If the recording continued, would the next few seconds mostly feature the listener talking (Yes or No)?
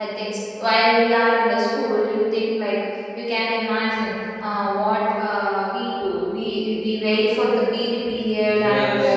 Yes